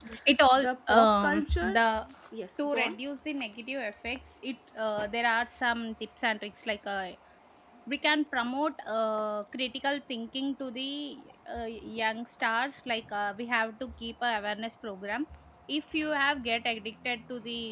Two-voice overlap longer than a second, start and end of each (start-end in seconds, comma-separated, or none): 0.6-1.8